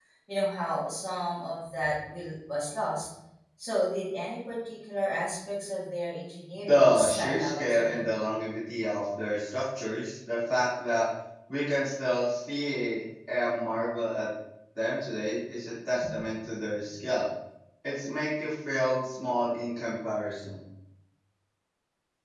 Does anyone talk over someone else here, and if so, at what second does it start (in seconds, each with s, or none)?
6.7 s